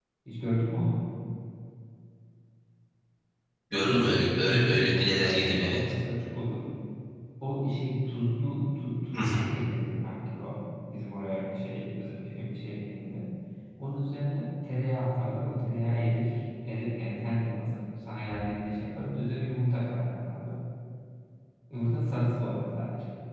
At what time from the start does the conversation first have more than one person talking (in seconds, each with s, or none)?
3.7 s